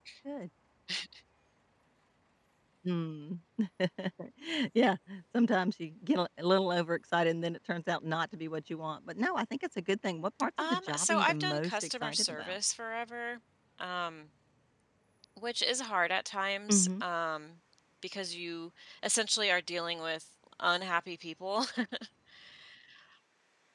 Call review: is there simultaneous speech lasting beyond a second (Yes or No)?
Yes